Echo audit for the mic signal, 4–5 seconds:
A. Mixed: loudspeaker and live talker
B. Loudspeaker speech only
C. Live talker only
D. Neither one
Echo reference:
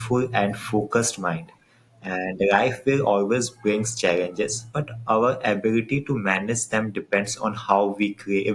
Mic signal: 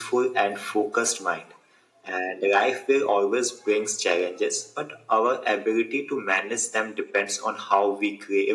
B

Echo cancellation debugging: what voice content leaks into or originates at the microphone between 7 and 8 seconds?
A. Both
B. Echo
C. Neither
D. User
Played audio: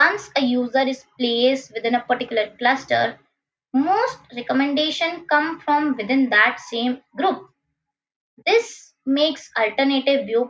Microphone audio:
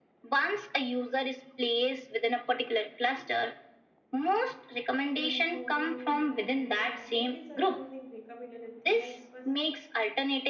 A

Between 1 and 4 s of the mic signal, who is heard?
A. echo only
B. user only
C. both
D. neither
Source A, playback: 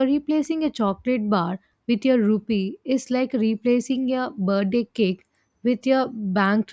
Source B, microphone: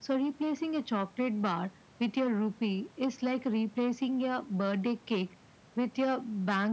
A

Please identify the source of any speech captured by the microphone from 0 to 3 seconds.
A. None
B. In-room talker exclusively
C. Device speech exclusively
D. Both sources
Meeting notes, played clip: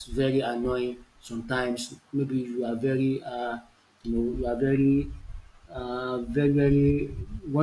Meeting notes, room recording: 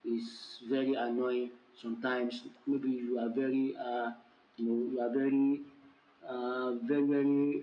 C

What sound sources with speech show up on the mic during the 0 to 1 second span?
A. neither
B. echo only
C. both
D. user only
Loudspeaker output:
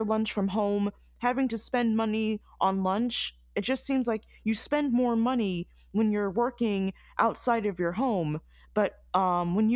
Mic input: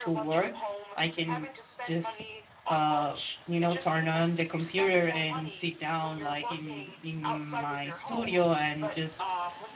C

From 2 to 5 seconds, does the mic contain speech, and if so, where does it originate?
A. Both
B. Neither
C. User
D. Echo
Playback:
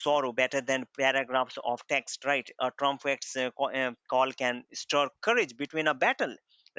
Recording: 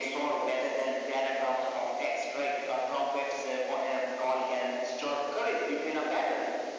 D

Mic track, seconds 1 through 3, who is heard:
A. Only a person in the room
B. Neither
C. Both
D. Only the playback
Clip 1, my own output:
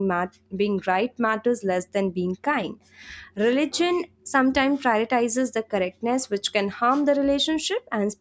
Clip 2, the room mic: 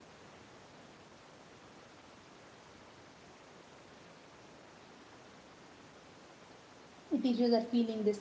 B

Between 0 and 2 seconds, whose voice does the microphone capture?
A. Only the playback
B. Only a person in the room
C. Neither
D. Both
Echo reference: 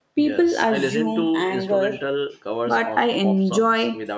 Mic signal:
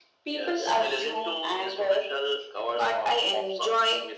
A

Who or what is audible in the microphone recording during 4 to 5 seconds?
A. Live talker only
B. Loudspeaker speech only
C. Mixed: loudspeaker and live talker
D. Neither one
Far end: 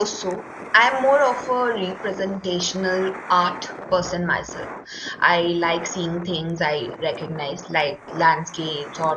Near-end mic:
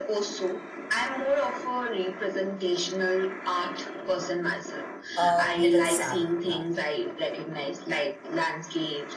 B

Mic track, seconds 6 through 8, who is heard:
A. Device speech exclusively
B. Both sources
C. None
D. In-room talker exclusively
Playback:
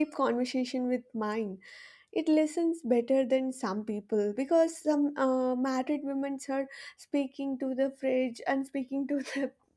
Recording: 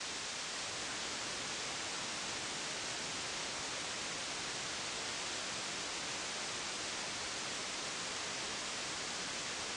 C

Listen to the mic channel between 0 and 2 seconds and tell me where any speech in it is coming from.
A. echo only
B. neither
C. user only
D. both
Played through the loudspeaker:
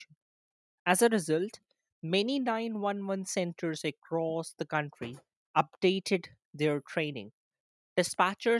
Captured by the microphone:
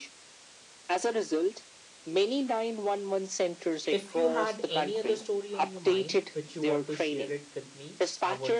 A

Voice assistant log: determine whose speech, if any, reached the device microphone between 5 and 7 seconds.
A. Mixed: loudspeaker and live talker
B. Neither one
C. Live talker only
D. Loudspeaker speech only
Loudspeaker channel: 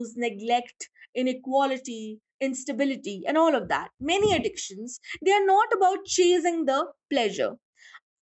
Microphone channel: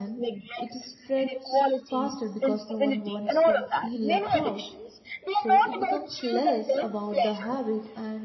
A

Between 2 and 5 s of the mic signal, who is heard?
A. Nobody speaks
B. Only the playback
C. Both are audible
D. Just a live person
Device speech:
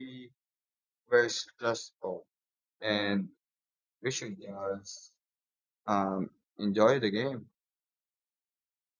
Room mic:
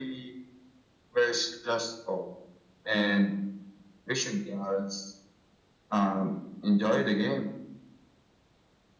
B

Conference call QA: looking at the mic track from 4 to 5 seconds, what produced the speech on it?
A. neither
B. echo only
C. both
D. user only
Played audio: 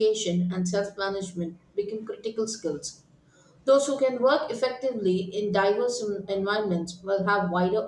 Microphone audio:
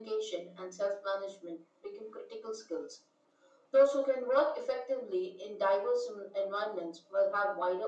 B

